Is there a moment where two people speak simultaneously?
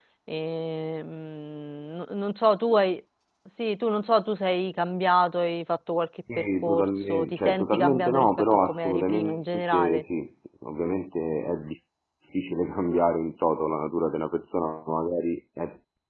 Yes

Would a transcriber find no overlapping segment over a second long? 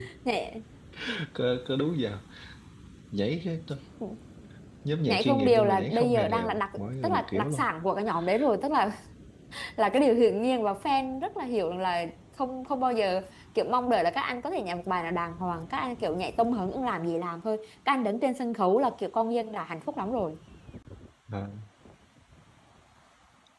No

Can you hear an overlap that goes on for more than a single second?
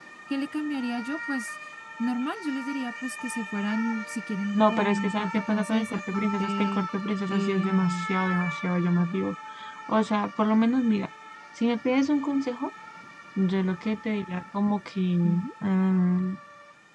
Yes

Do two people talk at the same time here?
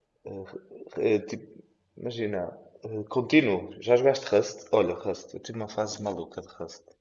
No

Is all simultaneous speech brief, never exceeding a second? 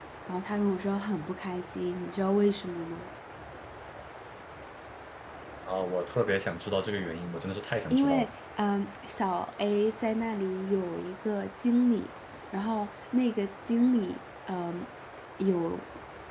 Yes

